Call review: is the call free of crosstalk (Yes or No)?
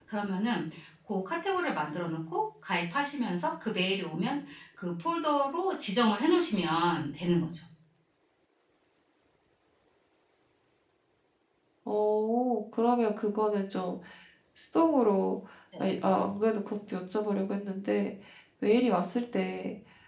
Yes